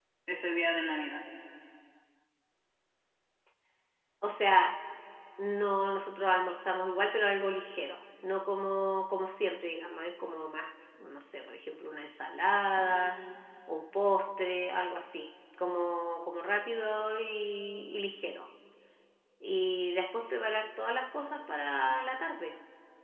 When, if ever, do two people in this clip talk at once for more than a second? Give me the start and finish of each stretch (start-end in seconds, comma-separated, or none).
none